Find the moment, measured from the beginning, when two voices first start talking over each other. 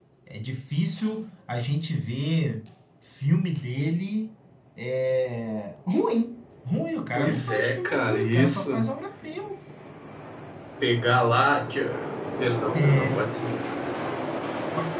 7.1 s

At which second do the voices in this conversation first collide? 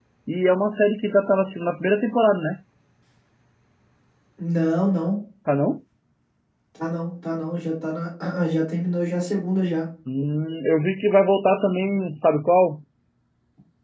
none

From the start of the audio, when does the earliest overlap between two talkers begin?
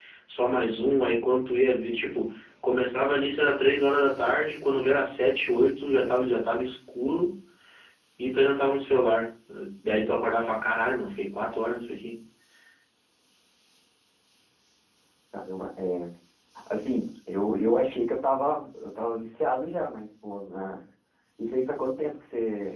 none

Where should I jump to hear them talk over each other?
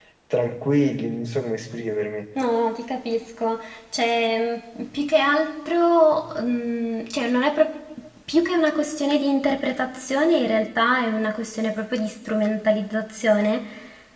none

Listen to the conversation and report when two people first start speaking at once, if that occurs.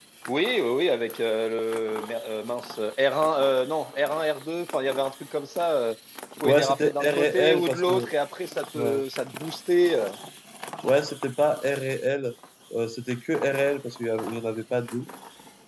6.4 s

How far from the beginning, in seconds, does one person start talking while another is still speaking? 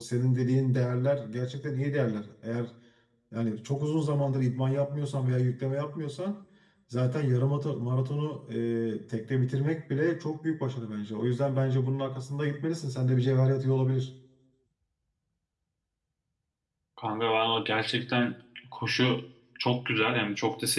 none

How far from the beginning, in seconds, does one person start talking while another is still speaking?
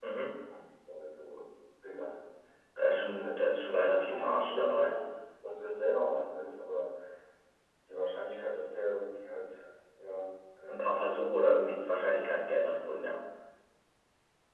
2.8 s

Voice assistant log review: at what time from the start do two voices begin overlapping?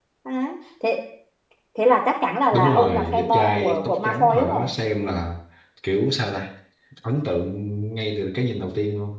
2.5 s

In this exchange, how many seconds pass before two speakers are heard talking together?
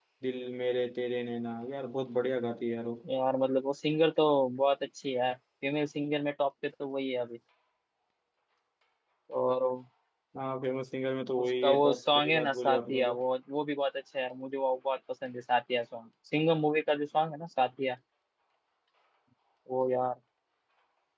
11.4 s

